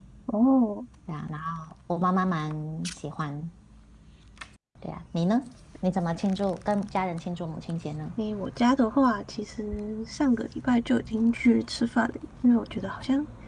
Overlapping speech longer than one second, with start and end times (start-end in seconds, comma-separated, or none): none